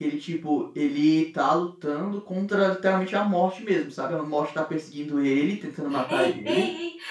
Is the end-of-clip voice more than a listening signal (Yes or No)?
Yes